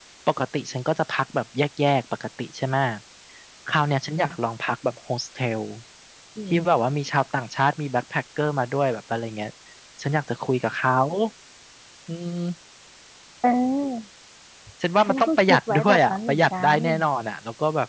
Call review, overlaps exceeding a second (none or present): present